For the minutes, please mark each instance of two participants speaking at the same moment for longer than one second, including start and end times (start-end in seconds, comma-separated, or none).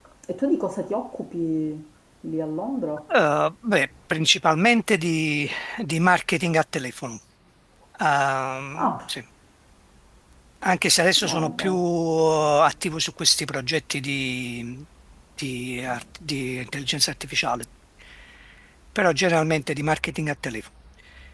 none